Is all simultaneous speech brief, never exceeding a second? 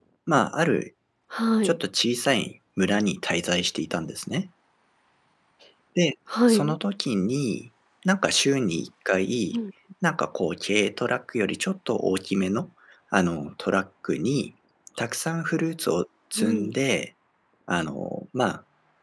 Yes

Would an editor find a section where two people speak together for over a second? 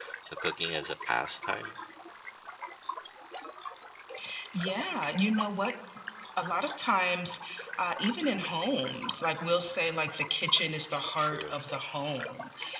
No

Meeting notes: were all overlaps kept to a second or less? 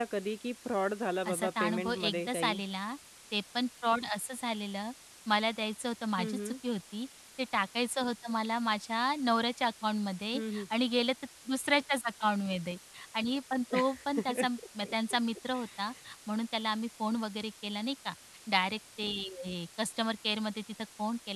No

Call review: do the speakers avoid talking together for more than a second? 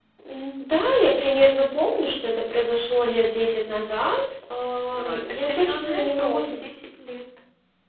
No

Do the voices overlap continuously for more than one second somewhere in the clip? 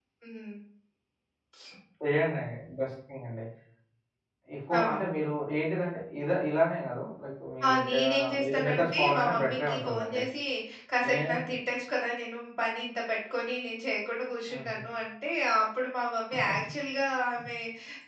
Yes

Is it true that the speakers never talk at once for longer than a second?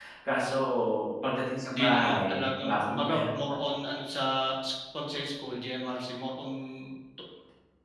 No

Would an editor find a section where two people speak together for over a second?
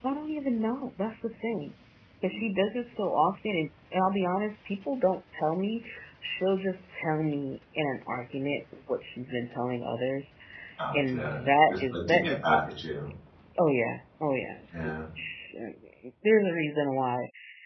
Yes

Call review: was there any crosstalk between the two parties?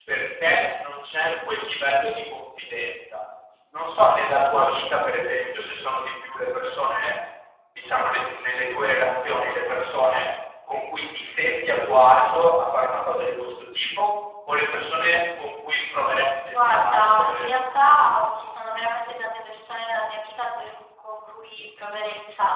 Yes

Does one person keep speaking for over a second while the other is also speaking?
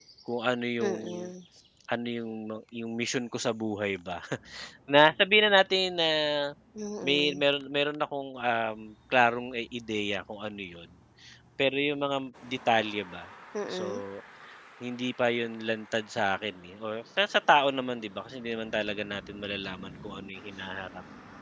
No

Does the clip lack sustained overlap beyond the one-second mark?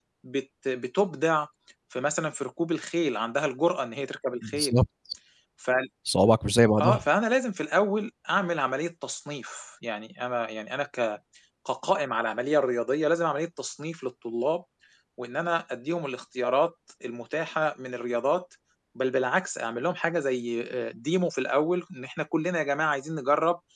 Yes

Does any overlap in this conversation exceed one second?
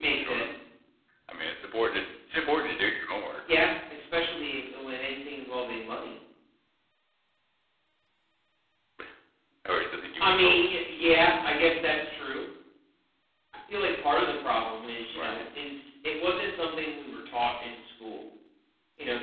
No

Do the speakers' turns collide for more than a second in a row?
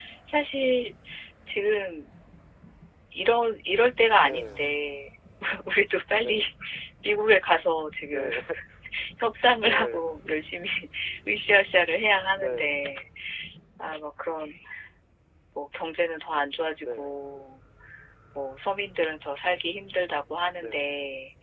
No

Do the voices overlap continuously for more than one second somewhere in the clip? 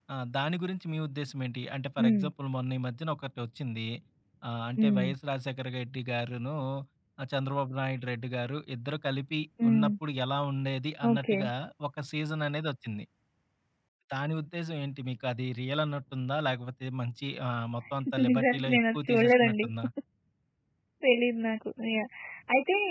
Yes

